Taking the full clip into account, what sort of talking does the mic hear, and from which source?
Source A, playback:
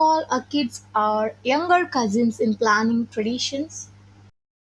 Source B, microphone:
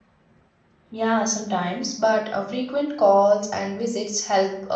user only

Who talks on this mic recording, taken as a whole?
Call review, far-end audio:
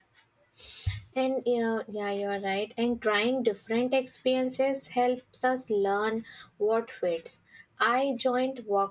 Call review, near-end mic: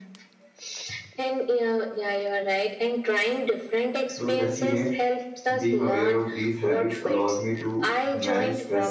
both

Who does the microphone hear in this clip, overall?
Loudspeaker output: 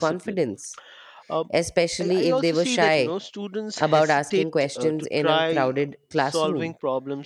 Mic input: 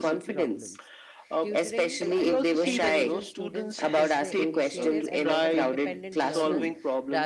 both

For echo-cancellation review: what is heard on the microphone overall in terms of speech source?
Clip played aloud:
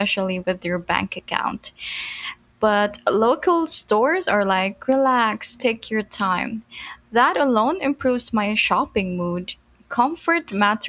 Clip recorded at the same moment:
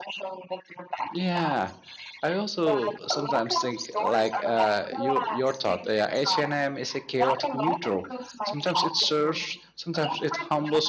both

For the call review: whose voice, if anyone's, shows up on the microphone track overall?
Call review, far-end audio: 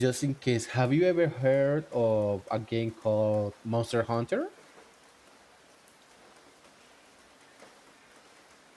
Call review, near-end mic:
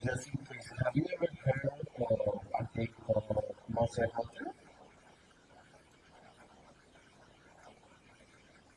echo only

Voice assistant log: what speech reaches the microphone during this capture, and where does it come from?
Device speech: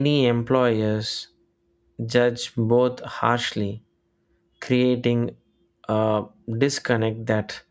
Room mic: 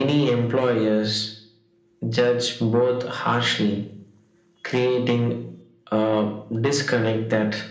echo only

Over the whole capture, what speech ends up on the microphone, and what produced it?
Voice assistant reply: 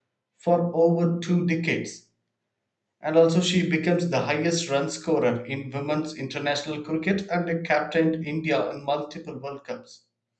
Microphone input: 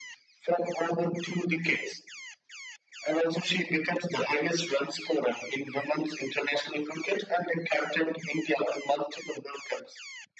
echo only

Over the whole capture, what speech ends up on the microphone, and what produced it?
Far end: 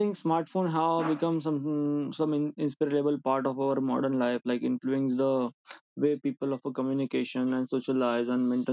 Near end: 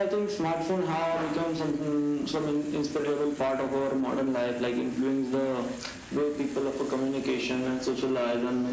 echo only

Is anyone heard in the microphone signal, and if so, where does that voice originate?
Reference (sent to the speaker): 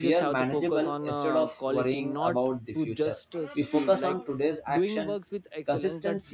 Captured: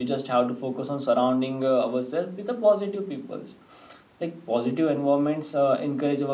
user only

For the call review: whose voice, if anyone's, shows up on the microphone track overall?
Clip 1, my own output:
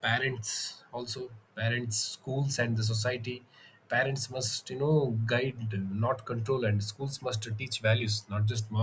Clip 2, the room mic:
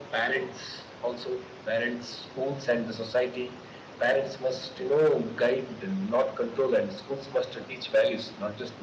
echo only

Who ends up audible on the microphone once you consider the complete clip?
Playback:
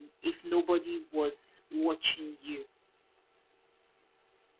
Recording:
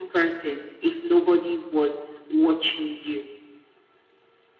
echo only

